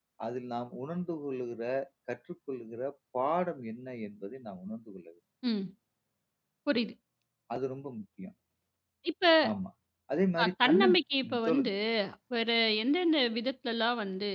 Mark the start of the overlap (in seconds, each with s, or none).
10.4 s